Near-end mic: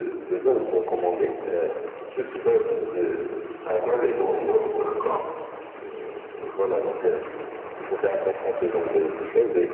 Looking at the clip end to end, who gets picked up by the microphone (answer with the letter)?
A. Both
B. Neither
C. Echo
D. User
C